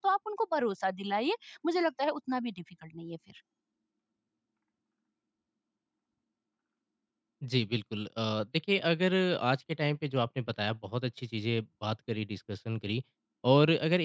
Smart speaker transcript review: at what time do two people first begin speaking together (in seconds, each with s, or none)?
none